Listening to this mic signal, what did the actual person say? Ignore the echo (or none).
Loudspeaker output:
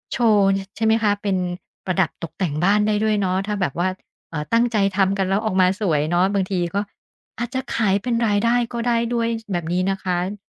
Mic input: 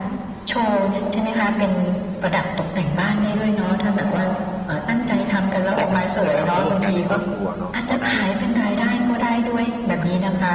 ได้ทำกิจกรรมร่วมกันในครอบครัวเนาะพอได้